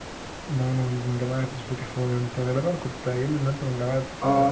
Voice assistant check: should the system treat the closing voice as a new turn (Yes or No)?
Yes